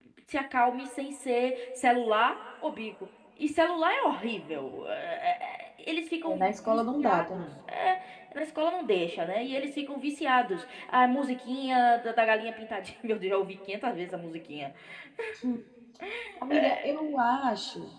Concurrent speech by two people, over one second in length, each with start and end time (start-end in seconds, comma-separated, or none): 6.2-7.5